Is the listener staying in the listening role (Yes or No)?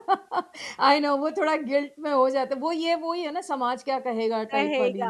No